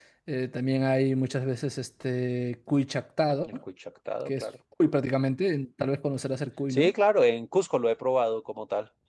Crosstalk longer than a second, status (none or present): none